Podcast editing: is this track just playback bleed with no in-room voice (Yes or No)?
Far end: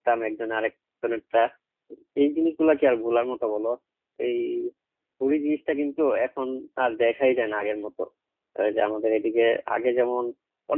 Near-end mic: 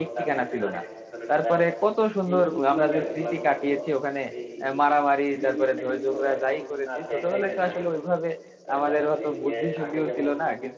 No